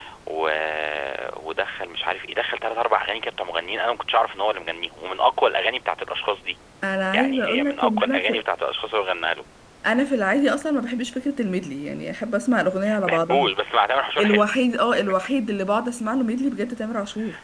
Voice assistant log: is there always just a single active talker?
No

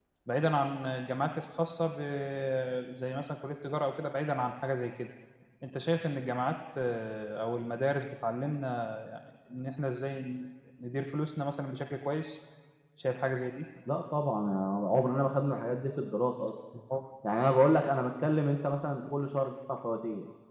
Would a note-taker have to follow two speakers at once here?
No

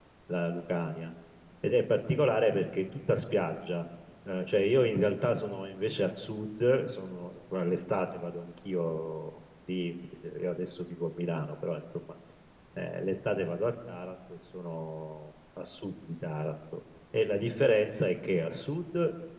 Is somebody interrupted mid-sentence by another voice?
No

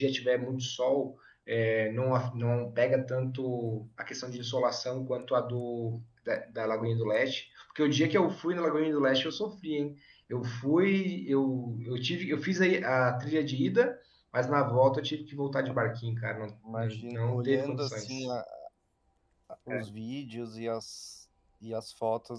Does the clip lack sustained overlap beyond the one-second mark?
No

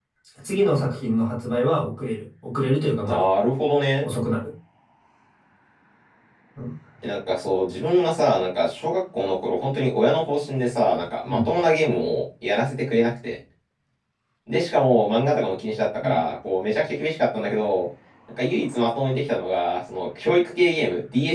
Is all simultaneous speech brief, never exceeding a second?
Yes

